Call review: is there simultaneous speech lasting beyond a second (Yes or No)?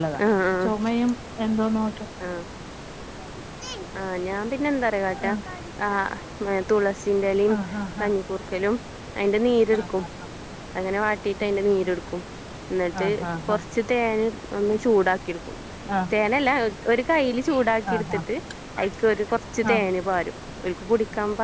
No